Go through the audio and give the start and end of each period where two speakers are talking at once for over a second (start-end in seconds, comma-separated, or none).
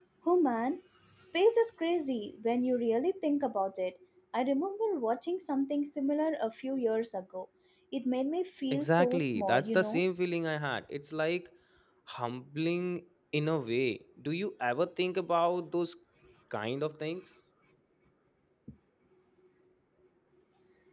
8.7-10.0